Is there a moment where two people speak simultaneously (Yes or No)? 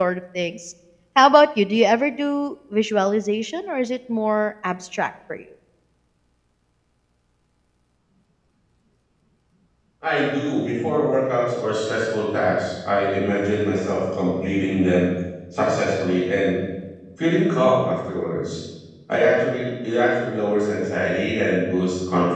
No